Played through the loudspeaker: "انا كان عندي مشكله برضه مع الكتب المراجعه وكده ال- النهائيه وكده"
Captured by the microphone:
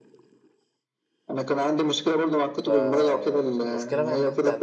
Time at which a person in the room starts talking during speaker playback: 2.6 s

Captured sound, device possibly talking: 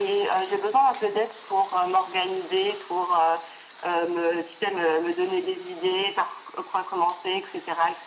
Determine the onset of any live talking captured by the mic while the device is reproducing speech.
none

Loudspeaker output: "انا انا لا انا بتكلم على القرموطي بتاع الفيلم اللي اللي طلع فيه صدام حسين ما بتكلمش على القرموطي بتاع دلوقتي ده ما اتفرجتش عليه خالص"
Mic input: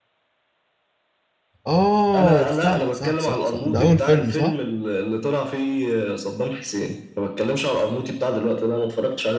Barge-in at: 1.7 s

